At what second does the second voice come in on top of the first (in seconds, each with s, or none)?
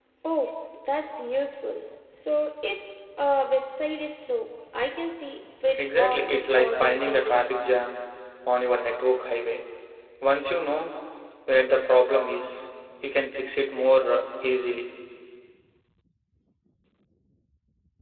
5.8 s